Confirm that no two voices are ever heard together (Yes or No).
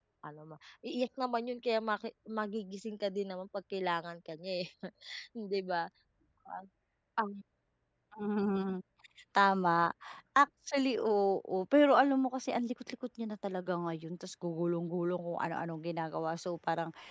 Yes